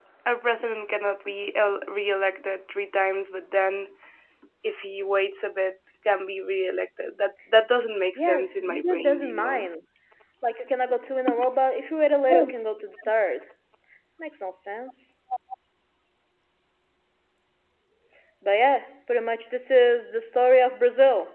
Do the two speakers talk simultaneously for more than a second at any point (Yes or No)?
Yes